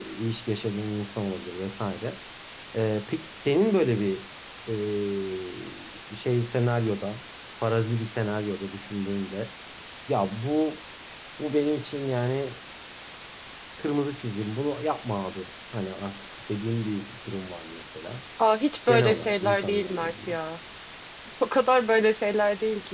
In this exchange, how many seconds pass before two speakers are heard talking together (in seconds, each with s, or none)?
18.9 s